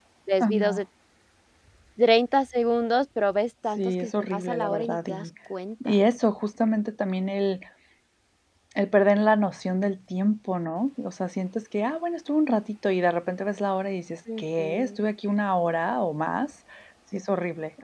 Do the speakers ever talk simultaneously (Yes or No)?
Yes